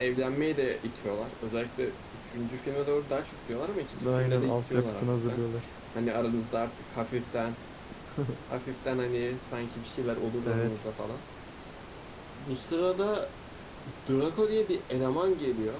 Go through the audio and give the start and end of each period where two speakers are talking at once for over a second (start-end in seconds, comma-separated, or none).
4.0-5.4